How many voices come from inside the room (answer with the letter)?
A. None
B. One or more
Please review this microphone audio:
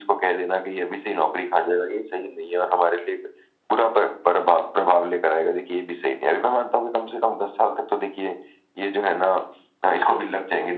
A